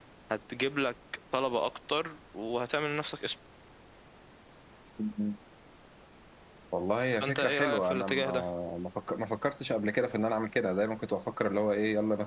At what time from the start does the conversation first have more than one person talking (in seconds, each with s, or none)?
7.1 s